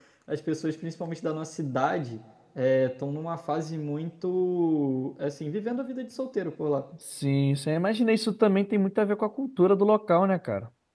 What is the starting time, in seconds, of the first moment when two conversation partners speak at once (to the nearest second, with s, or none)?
none